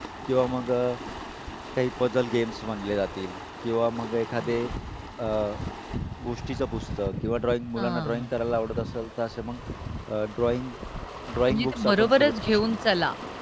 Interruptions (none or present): present